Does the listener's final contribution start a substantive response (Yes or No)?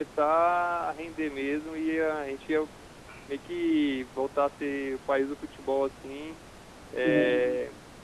No